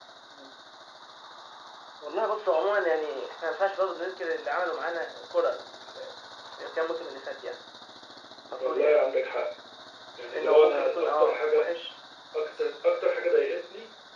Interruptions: present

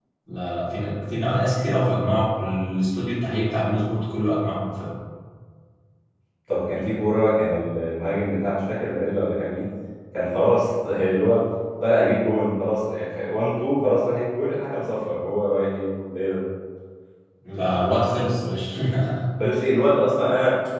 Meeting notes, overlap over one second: none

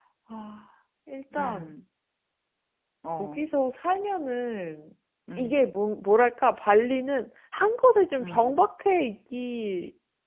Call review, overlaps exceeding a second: none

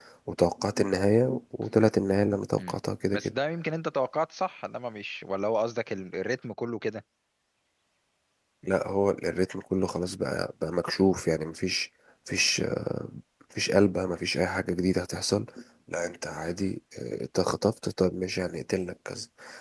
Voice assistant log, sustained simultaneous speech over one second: none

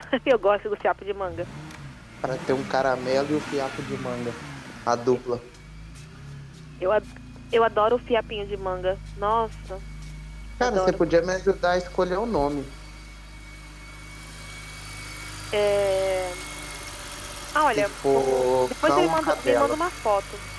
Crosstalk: present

